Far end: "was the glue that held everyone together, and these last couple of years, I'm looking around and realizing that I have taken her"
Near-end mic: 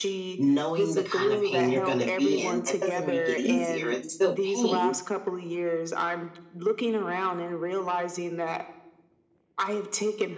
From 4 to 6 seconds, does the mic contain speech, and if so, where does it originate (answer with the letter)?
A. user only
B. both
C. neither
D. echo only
B